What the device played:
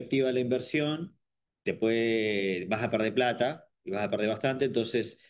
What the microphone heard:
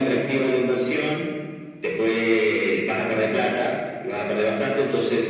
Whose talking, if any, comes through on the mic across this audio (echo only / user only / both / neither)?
echo only